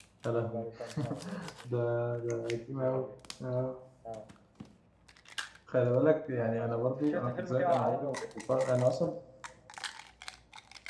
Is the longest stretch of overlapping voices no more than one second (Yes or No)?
No